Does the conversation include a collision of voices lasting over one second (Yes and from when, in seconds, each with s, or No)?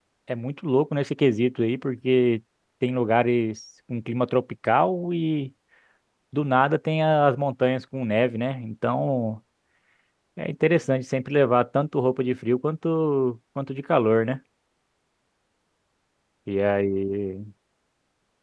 No